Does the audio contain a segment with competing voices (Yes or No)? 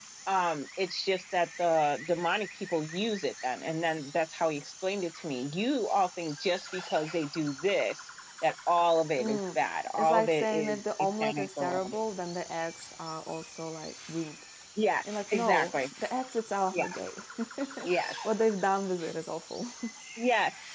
Yes